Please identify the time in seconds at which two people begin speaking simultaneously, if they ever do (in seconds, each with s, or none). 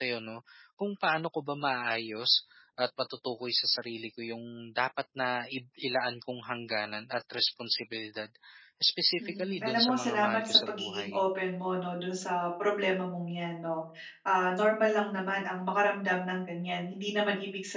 9.2 s